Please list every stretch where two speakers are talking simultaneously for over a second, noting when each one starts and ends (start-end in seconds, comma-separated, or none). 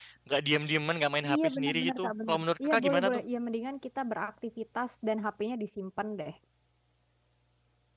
1.3-3.2